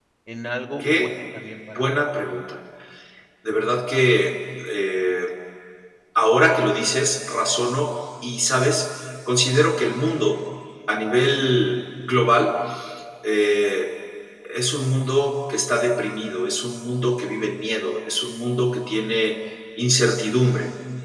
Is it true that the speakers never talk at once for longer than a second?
Yes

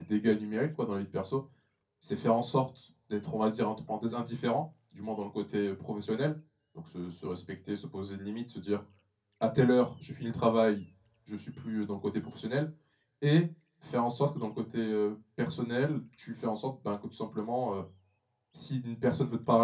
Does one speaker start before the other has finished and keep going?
No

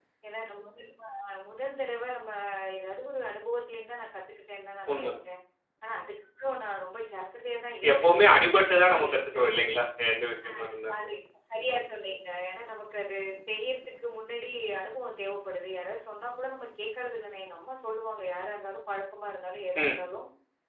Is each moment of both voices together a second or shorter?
Yes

